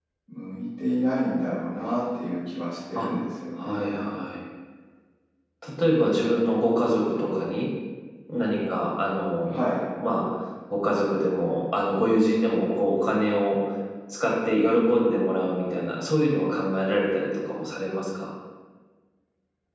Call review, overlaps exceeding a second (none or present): none